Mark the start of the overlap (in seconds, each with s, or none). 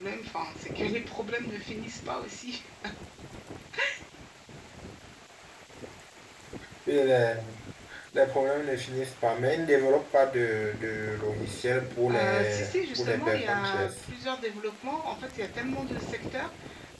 12.1 s